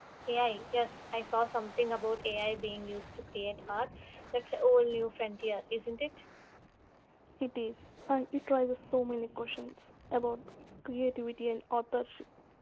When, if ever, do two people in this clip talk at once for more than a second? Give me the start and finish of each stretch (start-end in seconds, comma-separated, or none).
none